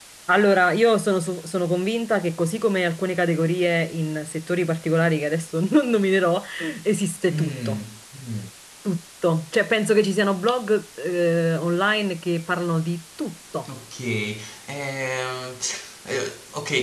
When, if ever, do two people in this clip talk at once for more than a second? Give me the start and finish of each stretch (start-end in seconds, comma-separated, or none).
none